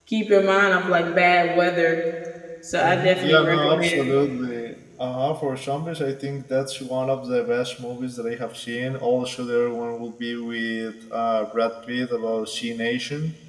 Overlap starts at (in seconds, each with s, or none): 2.8 s